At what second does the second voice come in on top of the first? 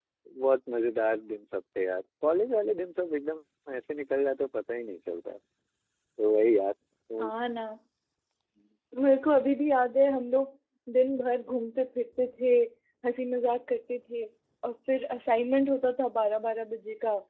none

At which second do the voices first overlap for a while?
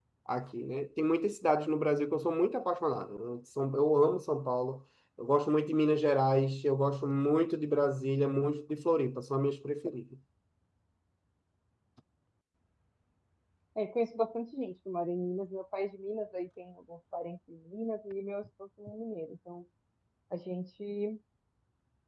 none

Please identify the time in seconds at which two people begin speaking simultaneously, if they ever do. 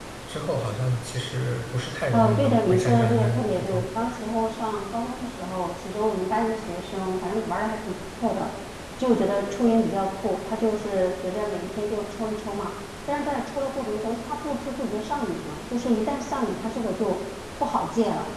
2 s

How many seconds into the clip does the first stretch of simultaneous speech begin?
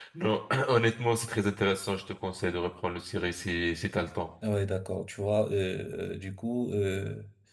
none

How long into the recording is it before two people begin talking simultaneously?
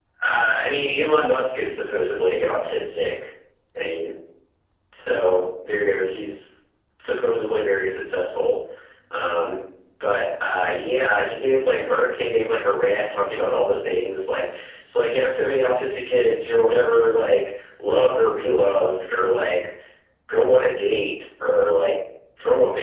none

